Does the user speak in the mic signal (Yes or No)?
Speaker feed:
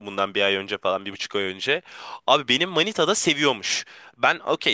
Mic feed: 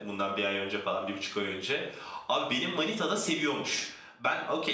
No